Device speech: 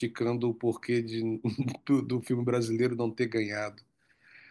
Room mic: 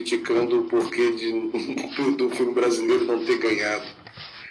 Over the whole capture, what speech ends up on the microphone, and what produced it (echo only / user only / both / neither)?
echo only